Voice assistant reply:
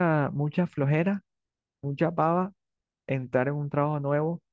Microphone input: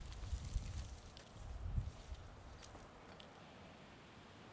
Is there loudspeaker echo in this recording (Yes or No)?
No